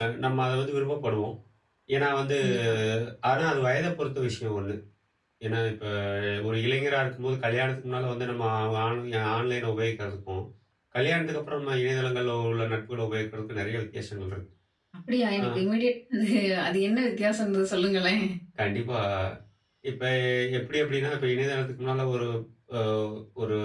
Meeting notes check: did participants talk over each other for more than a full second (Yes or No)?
No